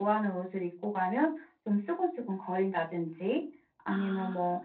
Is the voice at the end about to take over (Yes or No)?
No